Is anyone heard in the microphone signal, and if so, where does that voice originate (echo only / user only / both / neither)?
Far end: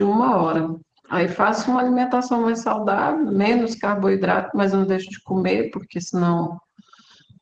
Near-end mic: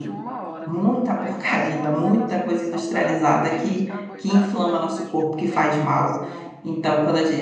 both